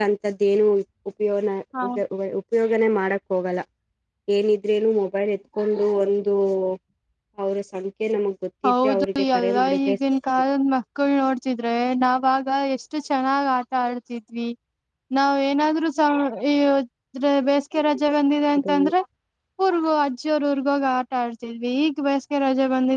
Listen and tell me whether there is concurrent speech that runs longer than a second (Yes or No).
Yes